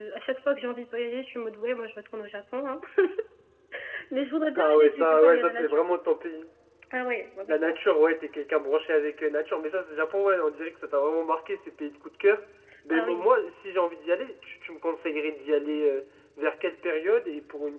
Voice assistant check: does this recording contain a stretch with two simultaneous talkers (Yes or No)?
Yes